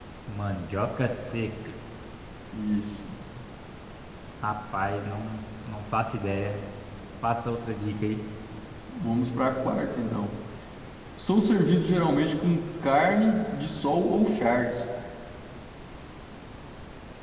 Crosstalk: none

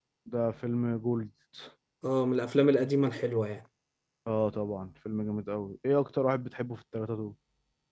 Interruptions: none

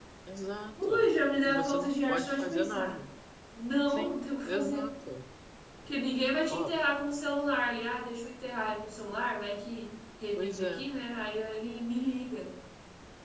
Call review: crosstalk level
present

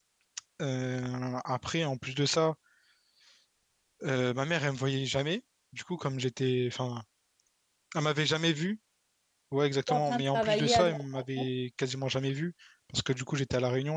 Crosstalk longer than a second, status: present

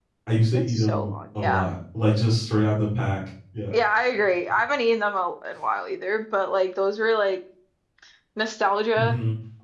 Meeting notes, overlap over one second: present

